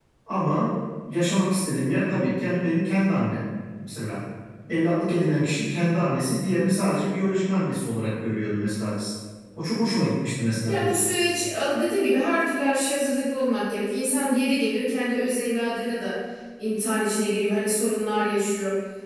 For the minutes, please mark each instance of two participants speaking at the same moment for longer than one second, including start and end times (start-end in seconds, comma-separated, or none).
none